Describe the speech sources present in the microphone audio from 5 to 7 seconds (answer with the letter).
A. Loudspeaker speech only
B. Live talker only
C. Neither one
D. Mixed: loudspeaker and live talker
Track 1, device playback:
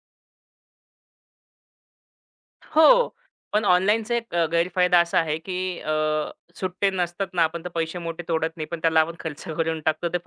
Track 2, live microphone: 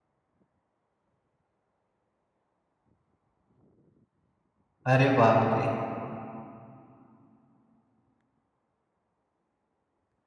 B